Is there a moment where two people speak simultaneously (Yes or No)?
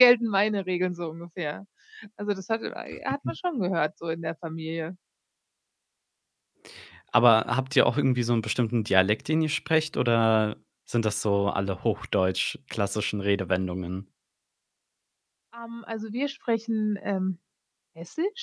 No